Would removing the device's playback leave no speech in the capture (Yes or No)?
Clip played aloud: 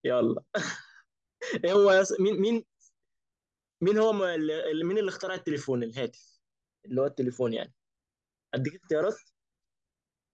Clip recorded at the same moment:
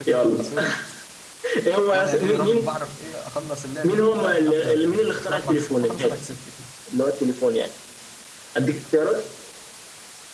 No